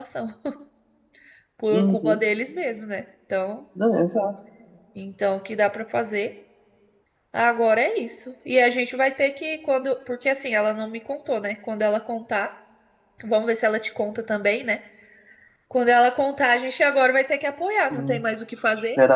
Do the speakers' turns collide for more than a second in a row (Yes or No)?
No